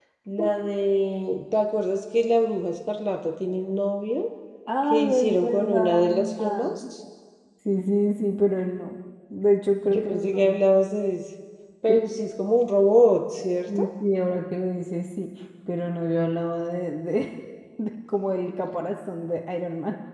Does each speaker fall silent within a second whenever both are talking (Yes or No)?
No